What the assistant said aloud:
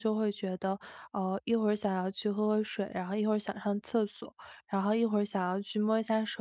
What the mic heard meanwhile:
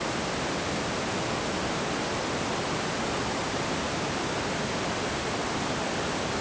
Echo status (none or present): none